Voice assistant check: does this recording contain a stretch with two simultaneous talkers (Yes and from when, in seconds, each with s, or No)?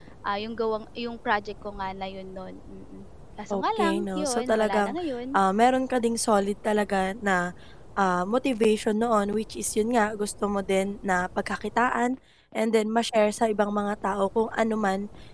Yes, from 3.5 s